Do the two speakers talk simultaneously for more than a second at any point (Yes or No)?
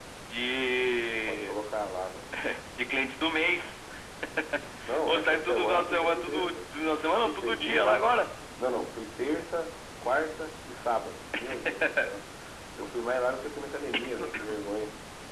Yes